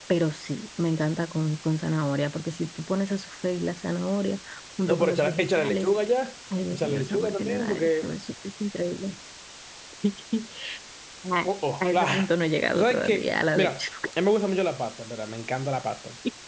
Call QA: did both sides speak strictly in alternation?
No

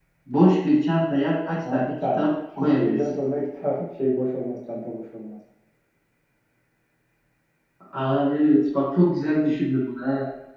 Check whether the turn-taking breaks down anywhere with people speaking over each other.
Yes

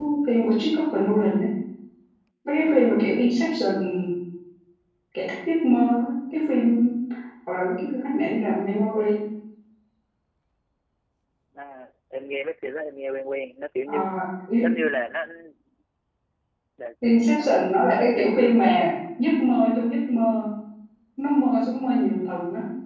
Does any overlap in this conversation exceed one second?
Yes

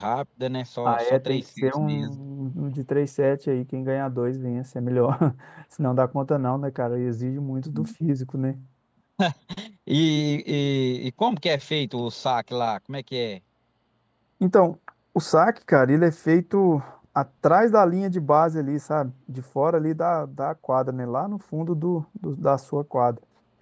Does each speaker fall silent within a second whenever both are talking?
No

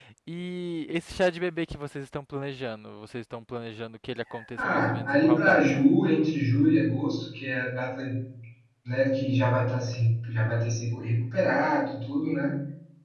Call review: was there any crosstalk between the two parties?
Yes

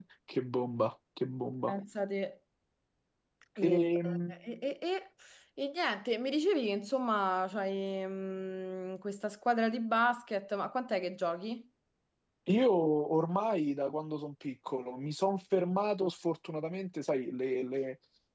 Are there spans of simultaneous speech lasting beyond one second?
No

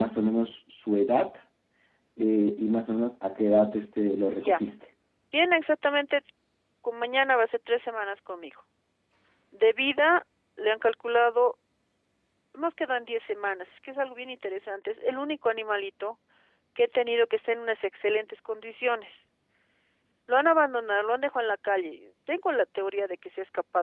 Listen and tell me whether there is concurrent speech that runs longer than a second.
No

